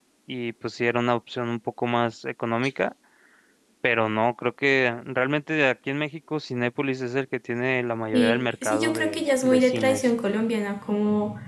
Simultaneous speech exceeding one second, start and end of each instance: 8.1-10.1

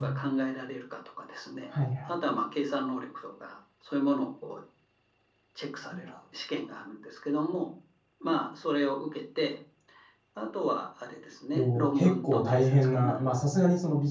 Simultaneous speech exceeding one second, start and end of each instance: 11.5-13.2

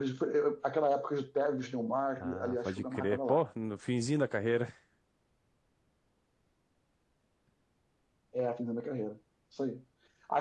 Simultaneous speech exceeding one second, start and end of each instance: 2.2-3.4

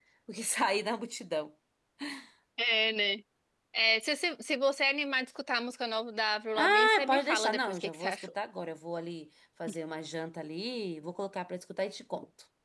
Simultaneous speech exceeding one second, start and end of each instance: 6.6-8.2

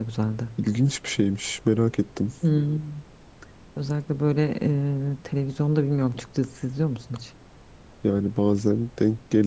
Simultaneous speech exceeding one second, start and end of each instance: none

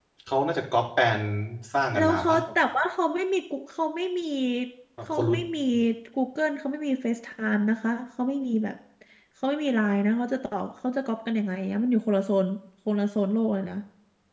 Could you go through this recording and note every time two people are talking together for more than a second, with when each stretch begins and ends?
none

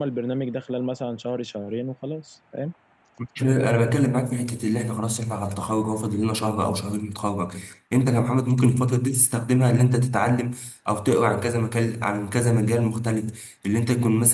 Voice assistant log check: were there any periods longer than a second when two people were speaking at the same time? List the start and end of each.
none

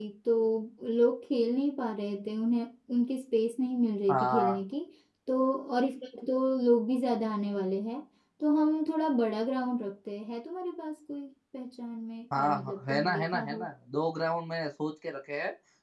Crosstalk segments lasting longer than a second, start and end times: 12.4-13.7

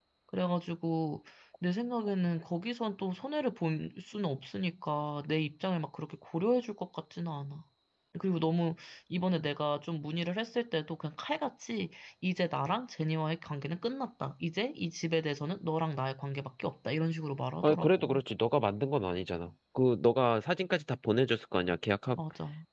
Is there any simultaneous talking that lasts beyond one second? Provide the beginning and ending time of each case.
none

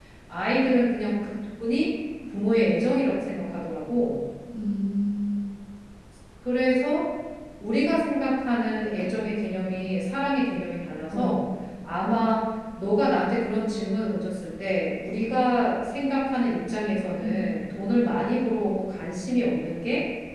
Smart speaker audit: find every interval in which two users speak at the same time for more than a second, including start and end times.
none

